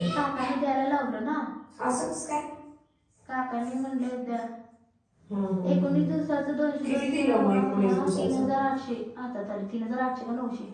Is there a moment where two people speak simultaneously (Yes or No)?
Yes